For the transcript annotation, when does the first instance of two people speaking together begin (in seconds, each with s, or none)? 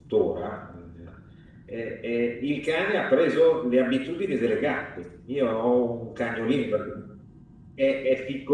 none